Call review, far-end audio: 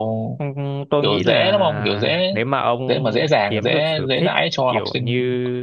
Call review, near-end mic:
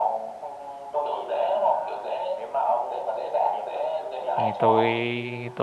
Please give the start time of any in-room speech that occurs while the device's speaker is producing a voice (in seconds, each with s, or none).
4.3 s